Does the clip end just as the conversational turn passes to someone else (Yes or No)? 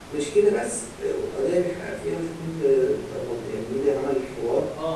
Yes